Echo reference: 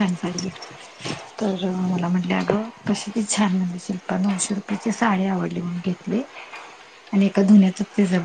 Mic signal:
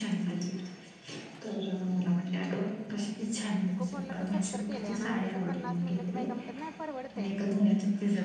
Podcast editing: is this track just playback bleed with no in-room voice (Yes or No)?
No